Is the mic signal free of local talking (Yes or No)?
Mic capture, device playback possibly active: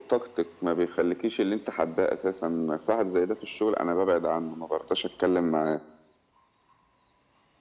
Yes